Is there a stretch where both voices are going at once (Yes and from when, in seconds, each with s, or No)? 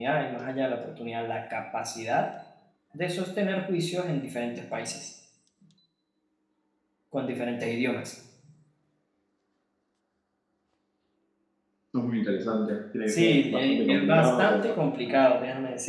Yes, from 13.1 s